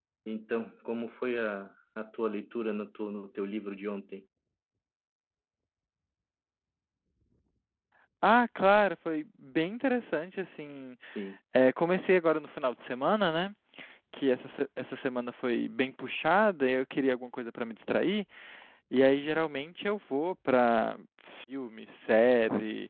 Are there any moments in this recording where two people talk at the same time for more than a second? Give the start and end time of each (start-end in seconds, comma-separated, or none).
none